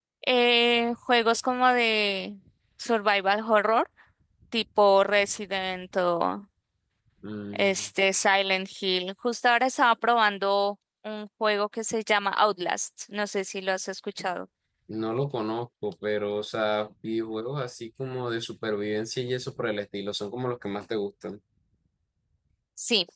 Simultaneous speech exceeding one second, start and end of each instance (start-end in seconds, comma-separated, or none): none